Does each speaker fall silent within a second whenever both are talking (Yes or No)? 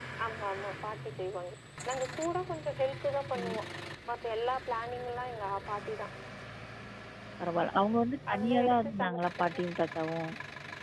No